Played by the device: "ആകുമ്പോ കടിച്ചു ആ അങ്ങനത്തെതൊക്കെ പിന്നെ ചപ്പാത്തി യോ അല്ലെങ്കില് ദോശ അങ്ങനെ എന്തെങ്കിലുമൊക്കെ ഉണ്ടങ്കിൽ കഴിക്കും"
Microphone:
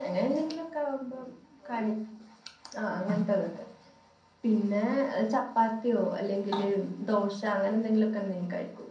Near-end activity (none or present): none